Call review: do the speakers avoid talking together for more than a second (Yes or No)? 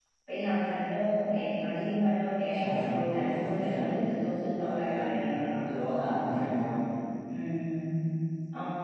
No